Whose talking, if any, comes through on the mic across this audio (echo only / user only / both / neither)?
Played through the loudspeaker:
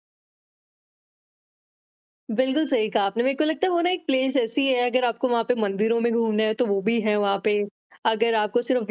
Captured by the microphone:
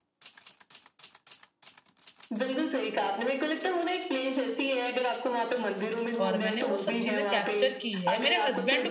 both